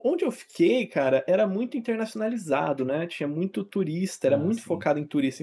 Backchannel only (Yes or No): Yes